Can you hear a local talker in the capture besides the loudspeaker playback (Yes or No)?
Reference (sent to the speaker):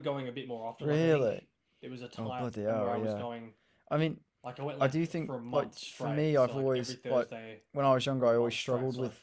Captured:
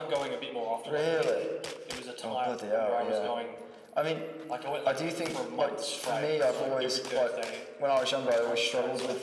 No